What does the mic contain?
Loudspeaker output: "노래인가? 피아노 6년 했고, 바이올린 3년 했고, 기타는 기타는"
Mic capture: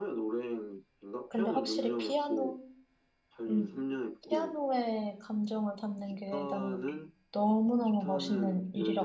both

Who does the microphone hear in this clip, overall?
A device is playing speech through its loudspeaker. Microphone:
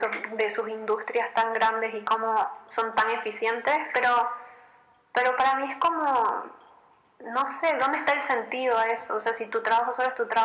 echo only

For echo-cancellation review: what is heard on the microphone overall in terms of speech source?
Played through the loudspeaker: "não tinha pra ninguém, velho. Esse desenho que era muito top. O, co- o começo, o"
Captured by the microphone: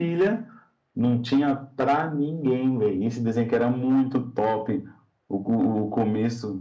echo only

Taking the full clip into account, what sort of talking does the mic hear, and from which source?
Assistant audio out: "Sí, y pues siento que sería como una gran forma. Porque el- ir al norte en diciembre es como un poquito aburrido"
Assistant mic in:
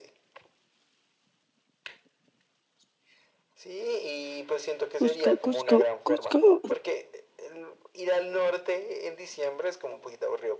both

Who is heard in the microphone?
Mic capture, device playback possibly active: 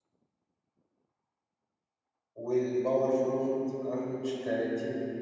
user only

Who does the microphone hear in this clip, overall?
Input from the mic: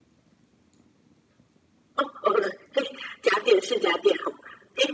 echo only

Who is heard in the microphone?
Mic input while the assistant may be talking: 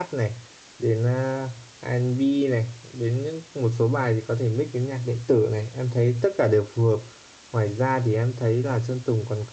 user only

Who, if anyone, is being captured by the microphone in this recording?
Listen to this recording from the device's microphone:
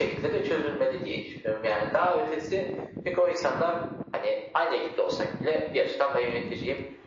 echo only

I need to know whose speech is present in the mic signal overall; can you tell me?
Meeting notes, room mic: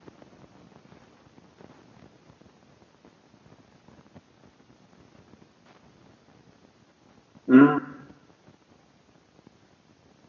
user only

